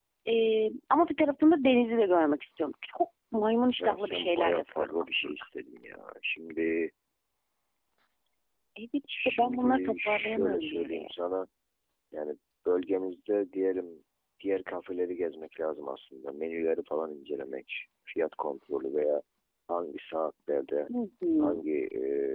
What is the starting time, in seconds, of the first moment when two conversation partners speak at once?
4 s

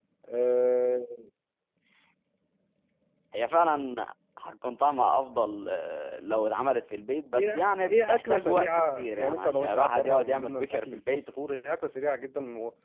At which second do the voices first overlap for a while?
7 s

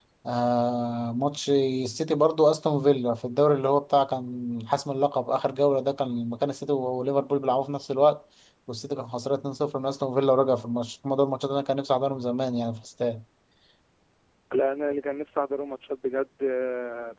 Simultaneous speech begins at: none

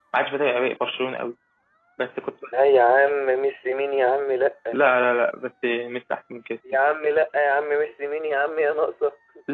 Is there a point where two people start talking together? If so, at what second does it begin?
none

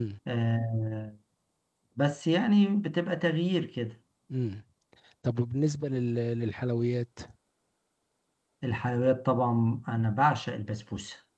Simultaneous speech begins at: none

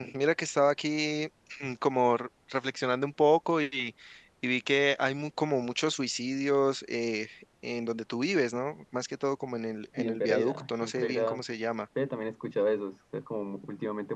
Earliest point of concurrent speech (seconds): 10 s

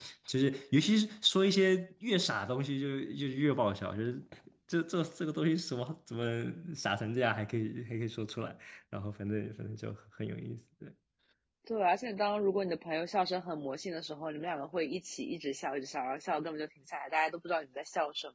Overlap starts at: none

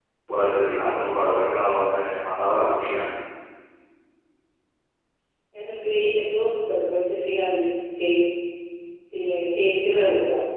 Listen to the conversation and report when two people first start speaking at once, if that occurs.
none

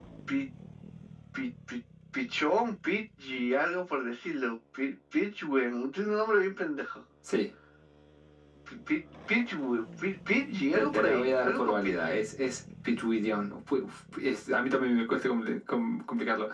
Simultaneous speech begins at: 11 s

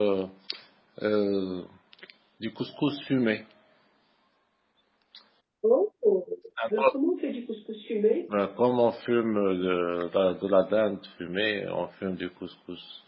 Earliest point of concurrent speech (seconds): none

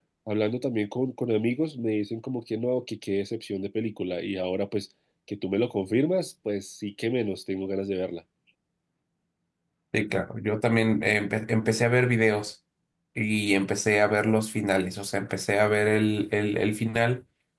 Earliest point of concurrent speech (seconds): none

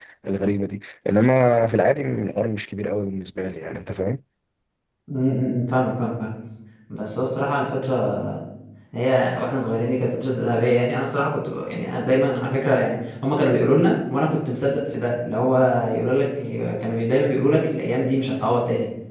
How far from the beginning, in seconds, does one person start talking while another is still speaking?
none

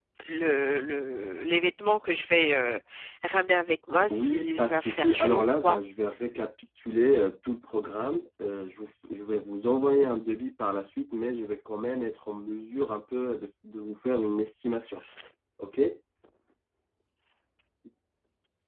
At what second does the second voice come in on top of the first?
4 s

